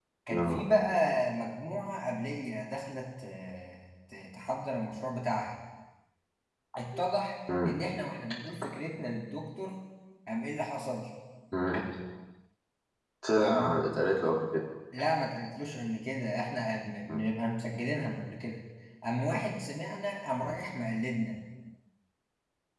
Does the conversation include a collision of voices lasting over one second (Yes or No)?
No